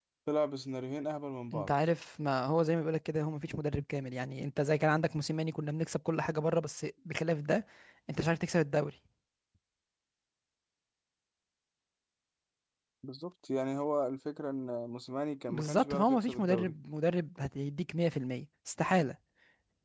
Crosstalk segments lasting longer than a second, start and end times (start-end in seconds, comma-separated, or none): 15.5-16.7